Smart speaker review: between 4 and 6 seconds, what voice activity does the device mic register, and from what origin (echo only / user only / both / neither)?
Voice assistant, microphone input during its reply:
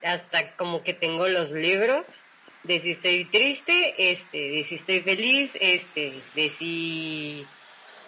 echo only